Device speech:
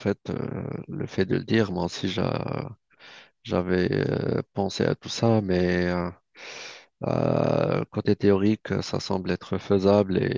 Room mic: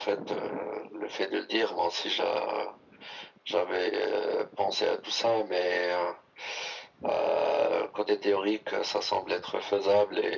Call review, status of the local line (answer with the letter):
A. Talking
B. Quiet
B